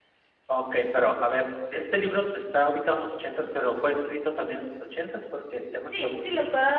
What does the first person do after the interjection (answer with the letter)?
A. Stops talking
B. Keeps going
A